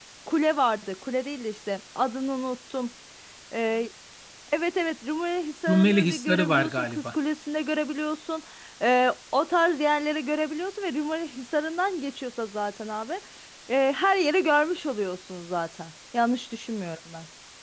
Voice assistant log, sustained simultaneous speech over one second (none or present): present